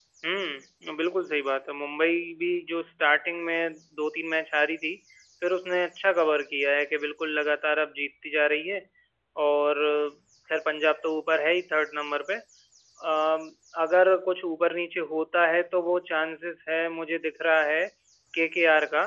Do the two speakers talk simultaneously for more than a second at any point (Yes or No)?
No